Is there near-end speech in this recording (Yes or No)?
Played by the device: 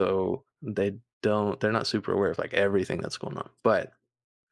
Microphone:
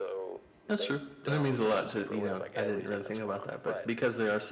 Yes